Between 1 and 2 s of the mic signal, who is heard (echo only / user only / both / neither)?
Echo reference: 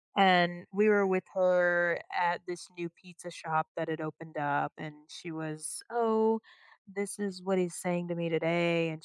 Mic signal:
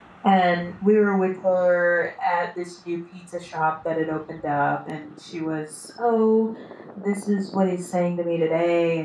echo only